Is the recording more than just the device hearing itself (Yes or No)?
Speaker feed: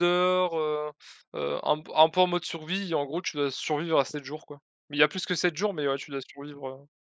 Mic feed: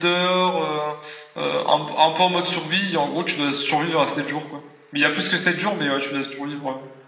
No